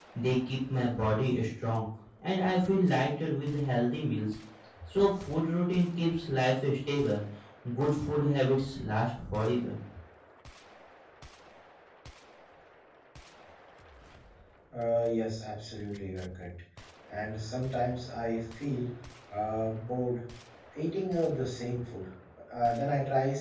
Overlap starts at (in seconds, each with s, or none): none